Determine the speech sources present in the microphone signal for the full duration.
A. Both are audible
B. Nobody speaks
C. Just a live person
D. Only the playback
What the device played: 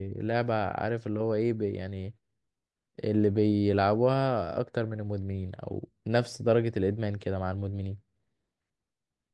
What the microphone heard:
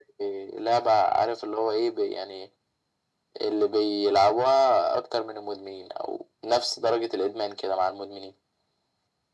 D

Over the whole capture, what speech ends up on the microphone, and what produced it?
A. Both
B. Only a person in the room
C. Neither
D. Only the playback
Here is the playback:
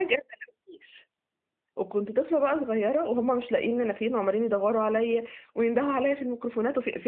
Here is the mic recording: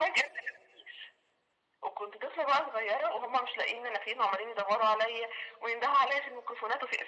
D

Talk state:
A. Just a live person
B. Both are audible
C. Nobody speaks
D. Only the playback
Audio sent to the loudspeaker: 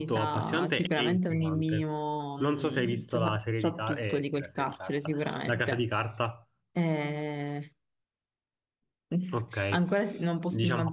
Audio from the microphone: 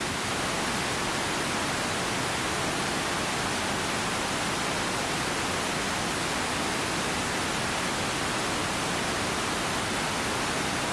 C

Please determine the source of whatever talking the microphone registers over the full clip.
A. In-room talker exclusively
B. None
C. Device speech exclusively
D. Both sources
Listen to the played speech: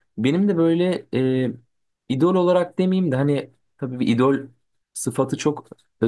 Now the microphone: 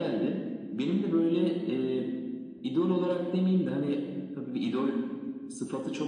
C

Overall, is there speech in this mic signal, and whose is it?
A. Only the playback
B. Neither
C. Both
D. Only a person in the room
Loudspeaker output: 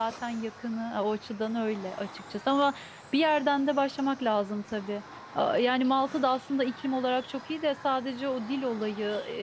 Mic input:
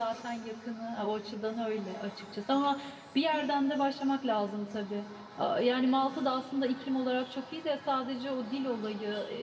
A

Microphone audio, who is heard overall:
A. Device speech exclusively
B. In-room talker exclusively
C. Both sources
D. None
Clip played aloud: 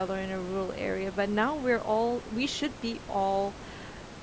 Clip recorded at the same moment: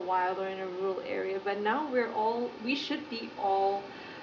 A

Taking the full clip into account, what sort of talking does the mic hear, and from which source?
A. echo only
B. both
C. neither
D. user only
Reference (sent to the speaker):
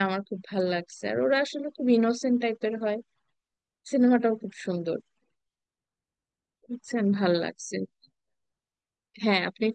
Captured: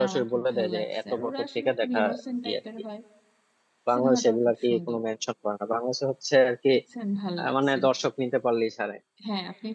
B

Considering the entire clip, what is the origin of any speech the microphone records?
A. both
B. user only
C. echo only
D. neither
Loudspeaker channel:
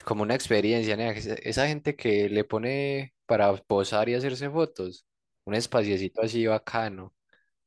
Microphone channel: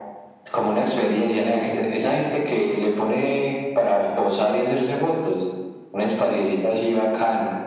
C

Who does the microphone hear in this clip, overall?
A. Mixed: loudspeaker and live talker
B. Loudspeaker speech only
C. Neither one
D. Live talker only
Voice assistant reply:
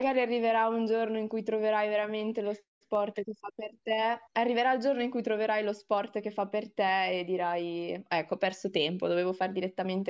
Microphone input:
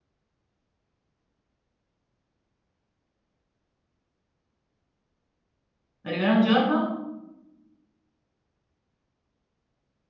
D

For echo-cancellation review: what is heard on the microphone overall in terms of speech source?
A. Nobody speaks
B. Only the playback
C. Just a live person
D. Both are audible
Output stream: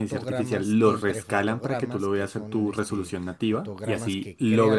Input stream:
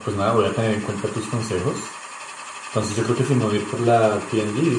C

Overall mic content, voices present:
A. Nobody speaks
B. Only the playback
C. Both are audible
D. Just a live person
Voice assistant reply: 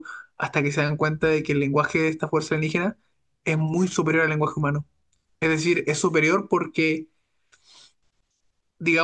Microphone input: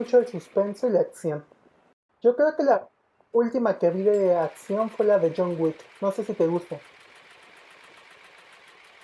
D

